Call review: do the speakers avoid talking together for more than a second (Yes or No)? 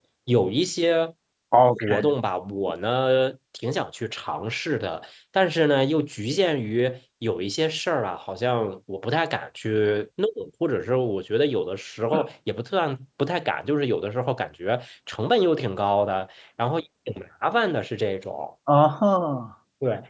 Yes